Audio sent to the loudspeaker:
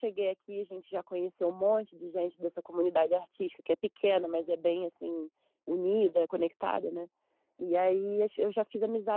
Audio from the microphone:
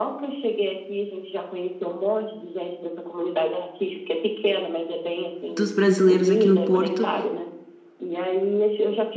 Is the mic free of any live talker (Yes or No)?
No